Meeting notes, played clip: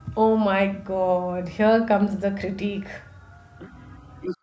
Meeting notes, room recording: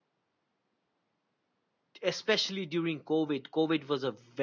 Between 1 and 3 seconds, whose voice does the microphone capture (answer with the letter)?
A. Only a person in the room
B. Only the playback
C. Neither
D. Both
A